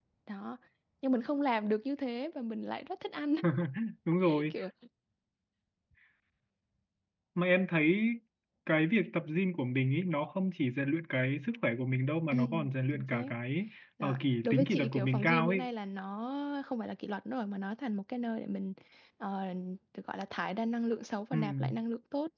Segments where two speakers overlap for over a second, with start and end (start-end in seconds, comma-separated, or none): 14.0-15.6